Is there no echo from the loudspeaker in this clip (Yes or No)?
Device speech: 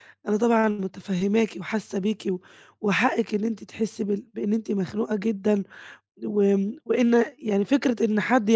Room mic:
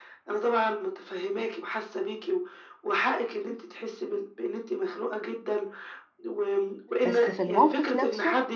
No